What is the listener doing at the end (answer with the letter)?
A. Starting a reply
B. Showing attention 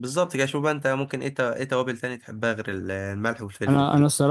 A